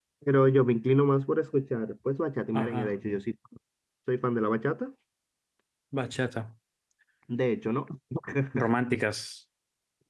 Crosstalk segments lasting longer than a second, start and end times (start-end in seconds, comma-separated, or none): none